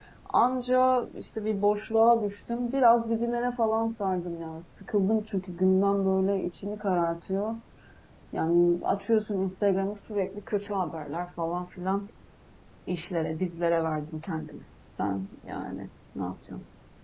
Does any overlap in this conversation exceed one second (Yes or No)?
No